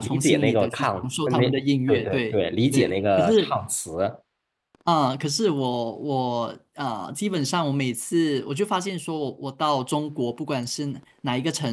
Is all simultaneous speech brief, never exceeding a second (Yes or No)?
No